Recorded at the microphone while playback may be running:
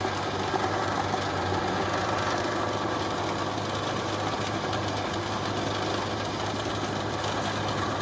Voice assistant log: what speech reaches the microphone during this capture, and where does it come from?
neither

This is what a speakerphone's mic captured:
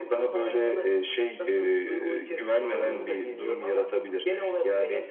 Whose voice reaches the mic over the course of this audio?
both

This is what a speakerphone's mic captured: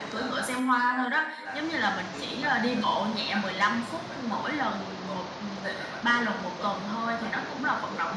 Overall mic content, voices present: echo only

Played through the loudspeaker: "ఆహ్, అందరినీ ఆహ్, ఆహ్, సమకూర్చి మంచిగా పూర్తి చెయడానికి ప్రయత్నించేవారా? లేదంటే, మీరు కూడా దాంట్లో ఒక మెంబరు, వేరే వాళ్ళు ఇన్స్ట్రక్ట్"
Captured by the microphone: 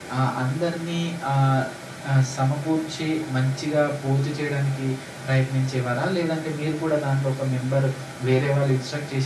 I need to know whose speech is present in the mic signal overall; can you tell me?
echo only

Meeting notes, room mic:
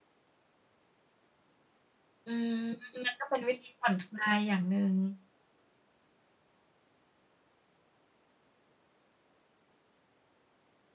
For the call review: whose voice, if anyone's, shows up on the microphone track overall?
user only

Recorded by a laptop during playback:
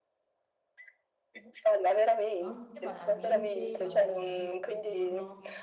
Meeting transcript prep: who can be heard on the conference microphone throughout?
both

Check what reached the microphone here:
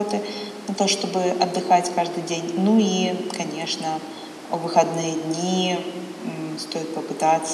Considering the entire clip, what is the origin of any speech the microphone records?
echo only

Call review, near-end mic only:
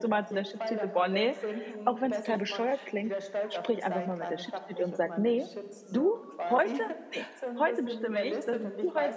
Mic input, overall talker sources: both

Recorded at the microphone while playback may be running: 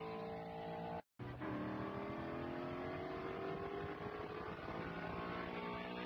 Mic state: neither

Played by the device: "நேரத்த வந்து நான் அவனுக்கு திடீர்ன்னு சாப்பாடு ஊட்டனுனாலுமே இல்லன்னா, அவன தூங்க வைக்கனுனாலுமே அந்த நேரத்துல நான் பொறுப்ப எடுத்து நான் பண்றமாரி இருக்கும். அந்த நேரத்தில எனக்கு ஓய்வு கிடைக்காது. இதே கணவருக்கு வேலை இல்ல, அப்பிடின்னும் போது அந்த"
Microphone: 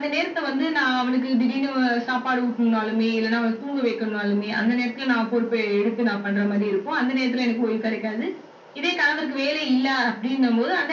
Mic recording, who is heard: echo only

